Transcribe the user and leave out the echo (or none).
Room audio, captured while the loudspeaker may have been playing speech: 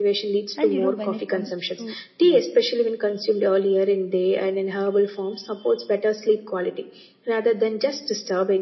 And you know, when it comes to yeah,